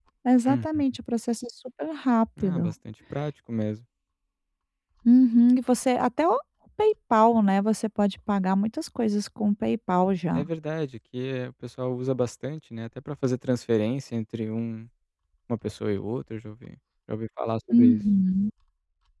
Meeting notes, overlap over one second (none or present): none